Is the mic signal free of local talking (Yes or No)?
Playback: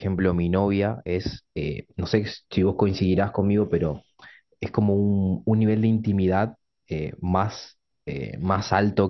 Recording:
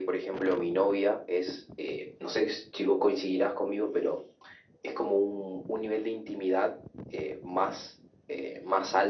Yes